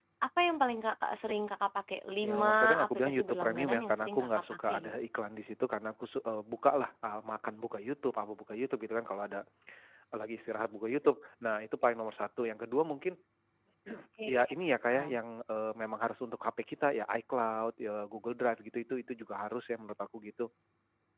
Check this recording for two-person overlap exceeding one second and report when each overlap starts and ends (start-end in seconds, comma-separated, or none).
2.2-4.9